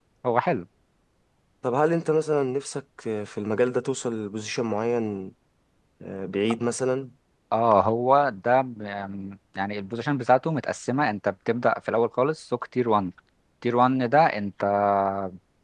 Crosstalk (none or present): none